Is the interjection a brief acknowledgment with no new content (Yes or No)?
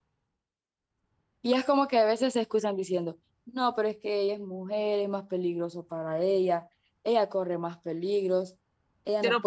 No